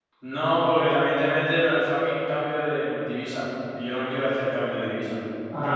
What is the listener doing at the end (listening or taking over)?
listening